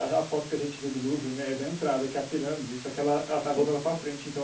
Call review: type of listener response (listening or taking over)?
listening